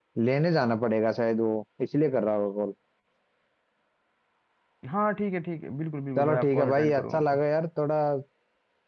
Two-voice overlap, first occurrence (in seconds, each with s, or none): 6.2 s